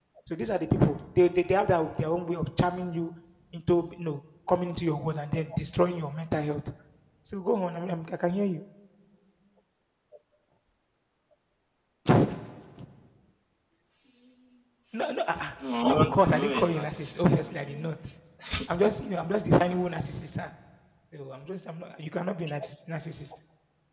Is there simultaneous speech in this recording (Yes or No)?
Yes